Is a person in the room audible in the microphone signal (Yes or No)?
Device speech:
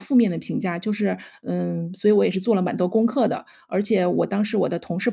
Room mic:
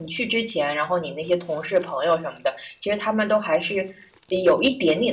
Yes